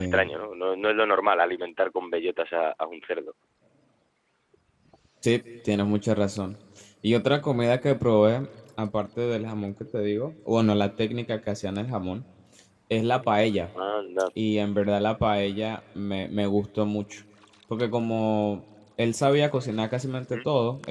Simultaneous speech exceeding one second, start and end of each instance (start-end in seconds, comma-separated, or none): none